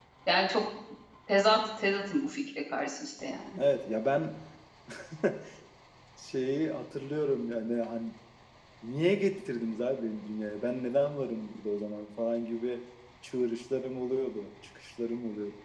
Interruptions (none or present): none